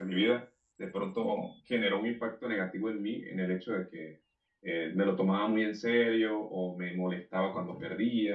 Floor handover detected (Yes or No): No